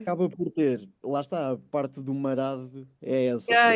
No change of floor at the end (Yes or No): No